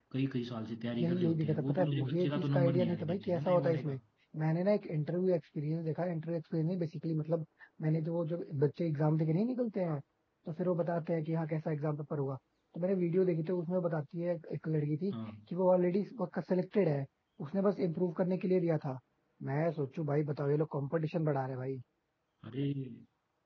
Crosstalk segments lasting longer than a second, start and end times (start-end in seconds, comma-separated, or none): 1.0-4.0